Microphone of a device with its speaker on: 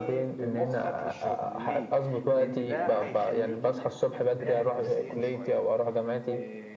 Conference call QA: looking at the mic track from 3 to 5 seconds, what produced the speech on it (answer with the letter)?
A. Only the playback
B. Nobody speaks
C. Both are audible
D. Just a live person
C